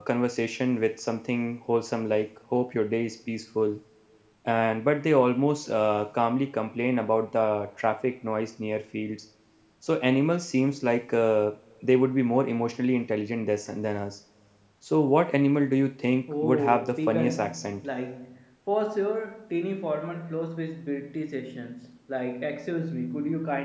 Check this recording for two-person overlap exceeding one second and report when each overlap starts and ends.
16.4-17.8

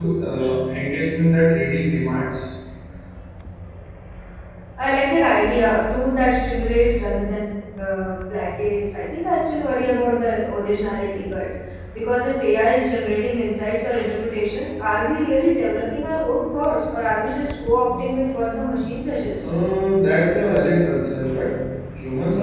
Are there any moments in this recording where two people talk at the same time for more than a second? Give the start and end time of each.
none

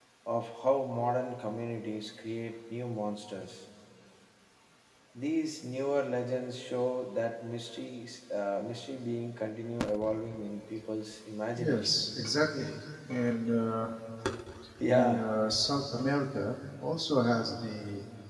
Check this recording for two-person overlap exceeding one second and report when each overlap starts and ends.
none

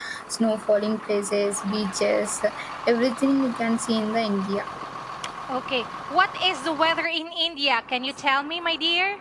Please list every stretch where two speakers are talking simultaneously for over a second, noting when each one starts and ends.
none

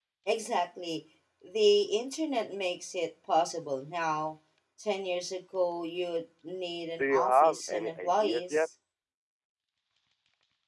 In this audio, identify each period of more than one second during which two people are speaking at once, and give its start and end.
7.0-8.6

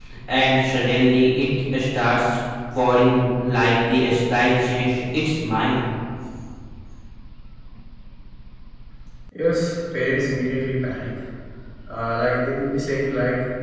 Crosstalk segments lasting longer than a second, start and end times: none

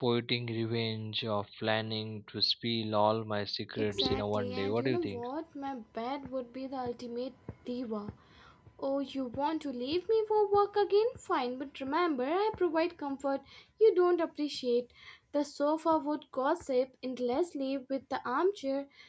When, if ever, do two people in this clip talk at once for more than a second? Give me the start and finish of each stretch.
3.8-5.2

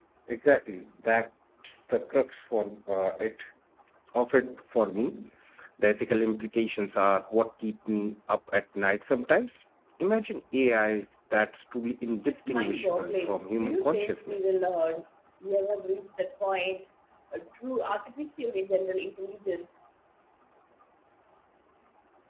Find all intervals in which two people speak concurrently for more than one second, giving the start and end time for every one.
12.3-14.5

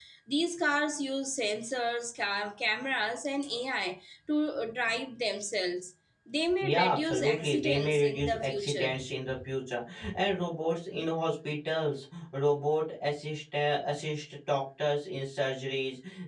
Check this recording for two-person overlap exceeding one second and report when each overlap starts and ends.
6.6-8.9

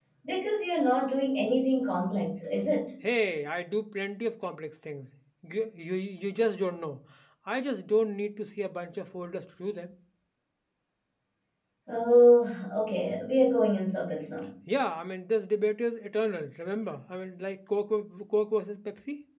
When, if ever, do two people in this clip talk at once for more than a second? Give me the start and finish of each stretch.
none

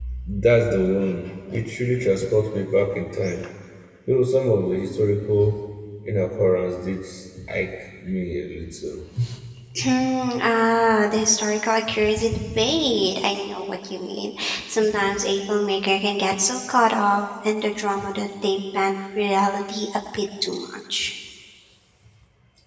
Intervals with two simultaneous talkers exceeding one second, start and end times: none

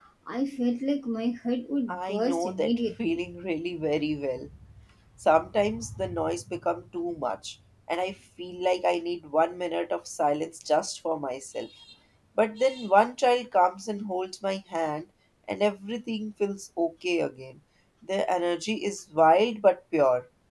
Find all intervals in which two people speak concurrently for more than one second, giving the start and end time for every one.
1.9-3.2

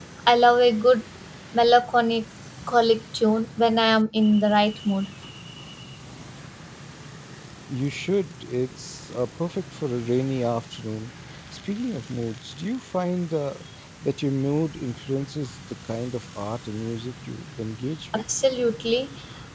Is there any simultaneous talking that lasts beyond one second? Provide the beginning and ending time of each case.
none

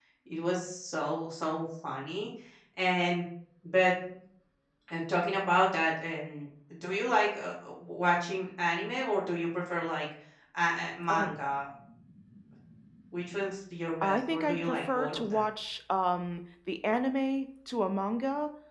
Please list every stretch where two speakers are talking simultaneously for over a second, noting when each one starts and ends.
14.0-15.4

